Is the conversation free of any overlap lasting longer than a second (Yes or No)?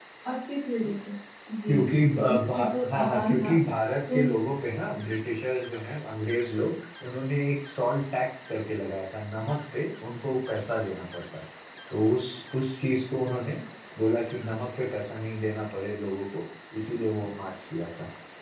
No